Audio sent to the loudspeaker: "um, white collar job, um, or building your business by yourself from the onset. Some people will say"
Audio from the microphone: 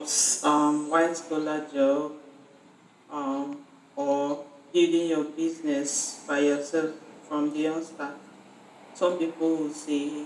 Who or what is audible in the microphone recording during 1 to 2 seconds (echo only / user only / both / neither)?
echo only